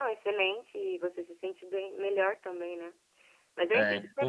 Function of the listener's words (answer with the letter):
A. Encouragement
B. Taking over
B